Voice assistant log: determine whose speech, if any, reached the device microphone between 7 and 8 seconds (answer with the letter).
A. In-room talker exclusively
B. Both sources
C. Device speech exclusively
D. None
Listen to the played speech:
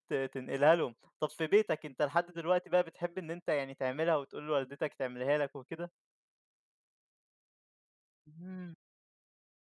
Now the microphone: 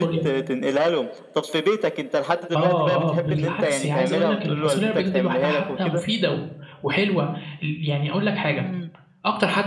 A